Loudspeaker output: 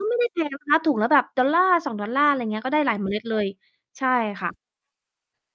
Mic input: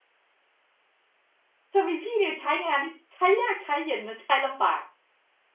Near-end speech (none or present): present